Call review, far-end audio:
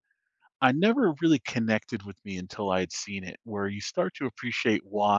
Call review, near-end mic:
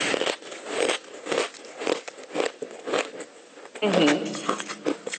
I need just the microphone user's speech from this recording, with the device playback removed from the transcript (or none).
Mhm.